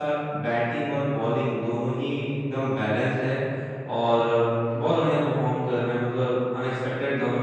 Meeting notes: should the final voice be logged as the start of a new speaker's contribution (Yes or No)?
No